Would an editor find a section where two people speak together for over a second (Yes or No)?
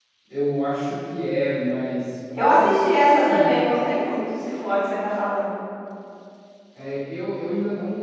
Yes